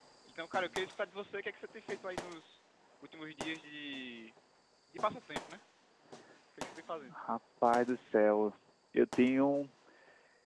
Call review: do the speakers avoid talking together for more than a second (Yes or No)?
Yes